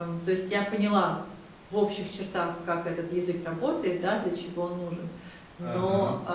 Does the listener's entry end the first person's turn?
No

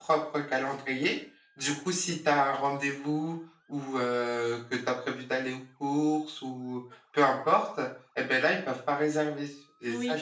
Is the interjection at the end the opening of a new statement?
Yes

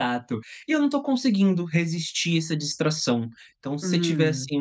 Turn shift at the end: No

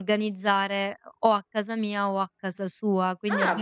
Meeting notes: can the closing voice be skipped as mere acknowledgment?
Yes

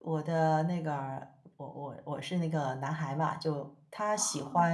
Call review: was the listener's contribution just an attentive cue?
Yes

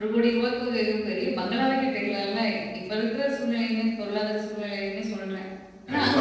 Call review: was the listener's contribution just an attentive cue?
No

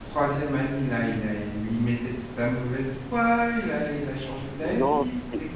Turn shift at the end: Yes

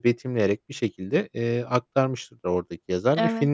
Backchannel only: Yes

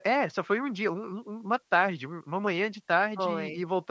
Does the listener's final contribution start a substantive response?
No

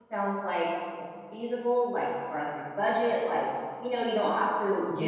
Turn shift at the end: No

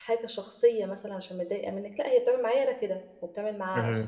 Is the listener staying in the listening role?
Yes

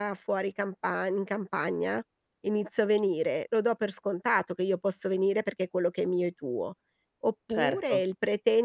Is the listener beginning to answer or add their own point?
No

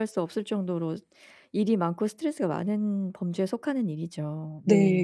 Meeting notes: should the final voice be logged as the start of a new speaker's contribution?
Yes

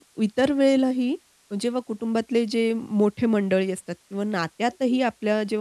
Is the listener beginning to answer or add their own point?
No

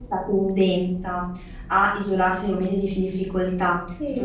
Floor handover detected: No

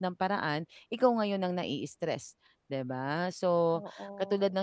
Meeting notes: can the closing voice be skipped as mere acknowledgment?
Yes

